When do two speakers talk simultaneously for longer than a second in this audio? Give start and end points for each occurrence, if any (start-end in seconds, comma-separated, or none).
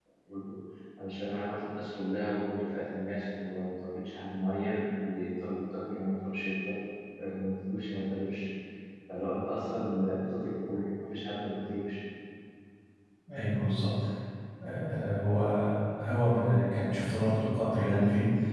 none